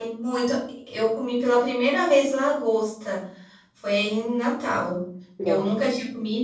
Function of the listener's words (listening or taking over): listening